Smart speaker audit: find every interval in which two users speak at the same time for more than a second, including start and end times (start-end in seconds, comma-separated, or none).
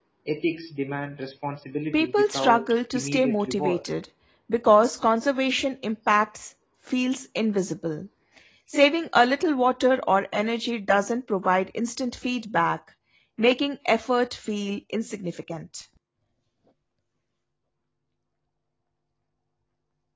1.9-3.9